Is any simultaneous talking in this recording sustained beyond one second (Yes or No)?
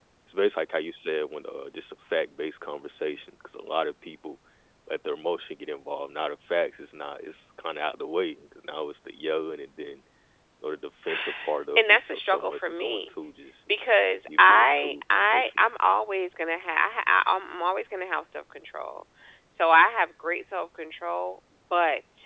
Yes